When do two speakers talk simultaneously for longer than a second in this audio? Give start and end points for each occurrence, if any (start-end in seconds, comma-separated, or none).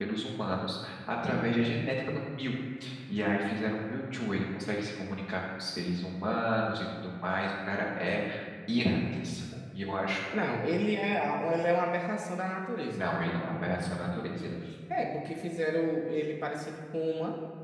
none